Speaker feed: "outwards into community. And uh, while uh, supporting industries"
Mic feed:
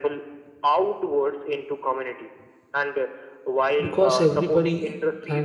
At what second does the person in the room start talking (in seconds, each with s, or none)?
3.8 s